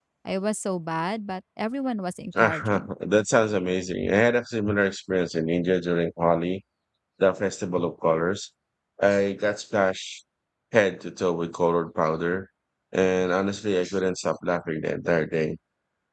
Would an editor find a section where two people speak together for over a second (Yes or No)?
No